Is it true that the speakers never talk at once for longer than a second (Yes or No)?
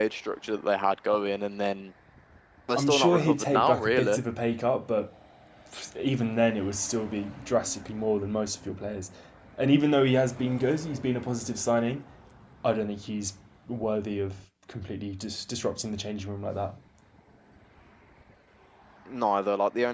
No